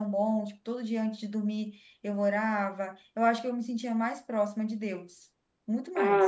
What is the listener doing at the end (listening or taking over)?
listening